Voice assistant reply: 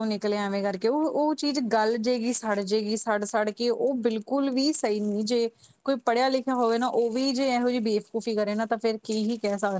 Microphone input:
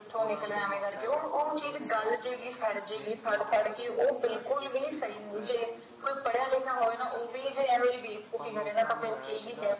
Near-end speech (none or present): present